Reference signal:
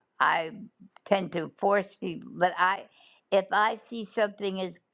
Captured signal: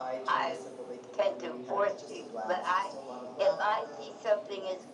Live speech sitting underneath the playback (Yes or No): Yes